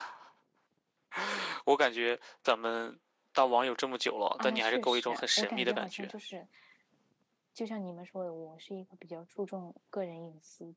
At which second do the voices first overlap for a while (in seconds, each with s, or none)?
4.4 s